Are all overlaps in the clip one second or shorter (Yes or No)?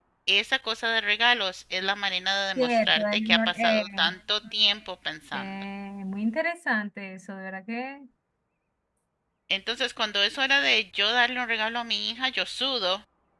No